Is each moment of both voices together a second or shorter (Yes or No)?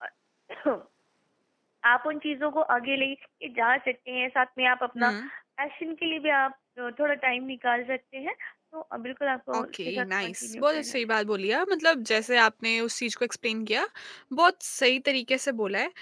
No